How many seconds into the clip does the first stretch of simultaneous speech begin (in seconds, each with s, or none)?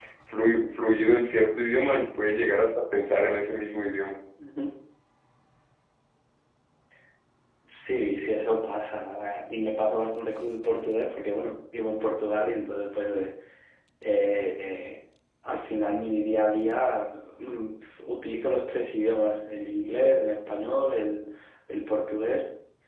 none